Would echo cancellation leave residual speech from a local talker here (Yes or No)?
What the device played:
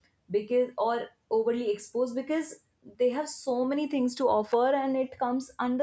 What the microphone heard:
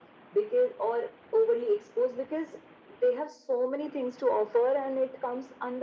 No